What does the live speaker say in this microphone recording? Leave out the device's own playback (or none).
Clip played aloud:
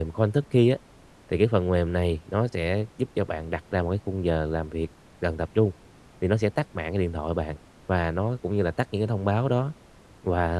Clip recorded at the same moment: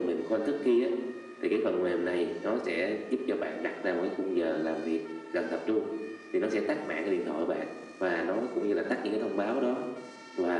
none